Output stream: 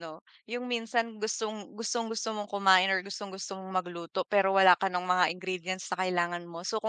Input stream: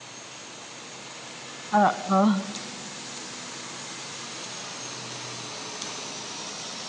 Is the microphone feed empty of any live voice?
No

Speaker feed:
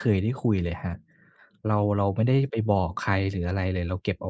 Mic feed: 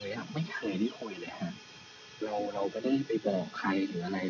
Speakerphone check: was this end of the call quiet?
Yes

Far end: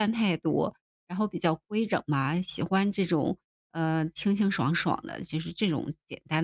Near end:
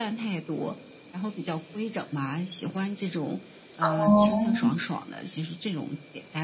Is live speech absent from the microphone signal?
No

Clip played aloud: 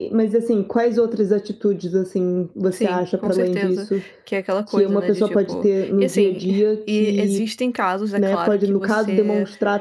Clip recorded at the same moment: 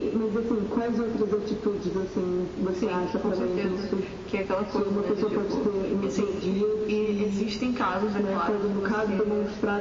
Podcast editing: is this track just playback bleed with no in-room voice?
Yes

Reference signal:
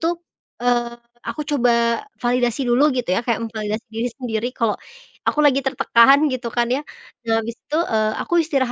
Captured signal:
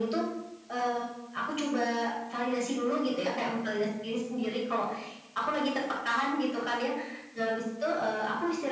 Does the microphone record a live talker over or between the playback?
No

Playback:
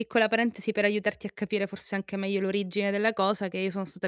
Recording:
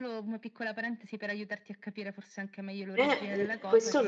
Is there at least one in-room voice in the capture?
Yes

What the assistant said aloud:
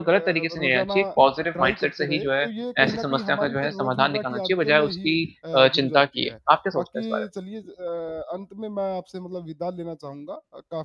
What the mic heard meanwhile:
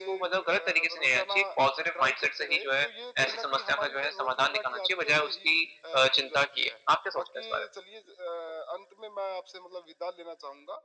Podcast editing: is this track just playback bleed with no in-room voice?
Yes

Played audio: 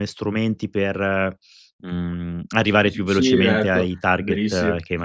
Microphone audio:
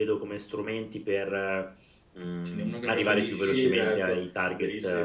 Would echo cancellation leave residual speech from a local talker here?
Yes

